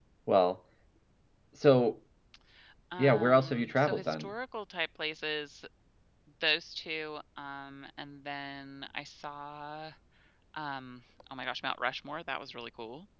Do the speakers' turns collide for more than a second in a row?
Yes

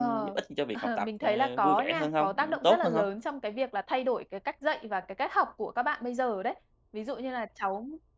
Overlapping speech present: Yes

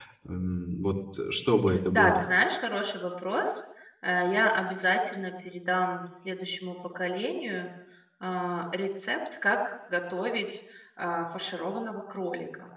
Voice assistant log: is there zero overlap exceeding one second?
Yes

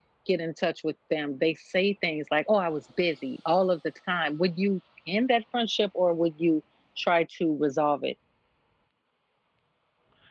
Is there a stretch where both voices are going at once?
No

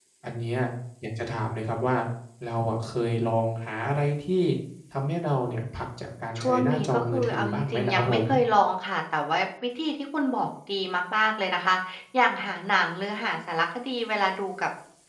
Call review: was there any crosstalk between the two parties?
Yes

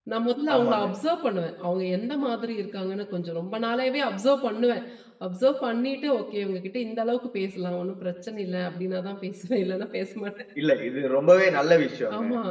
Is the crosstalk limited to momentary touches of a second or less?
Yes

